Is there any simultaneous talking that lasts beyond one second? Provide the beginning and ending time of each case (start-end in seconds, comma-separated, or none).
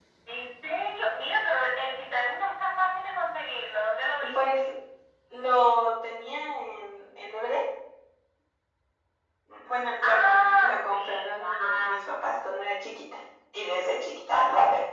10.0-12.3